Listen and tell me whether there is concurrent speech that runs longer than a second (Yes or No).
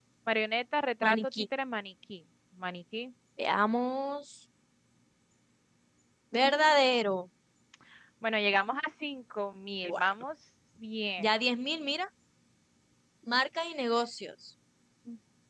No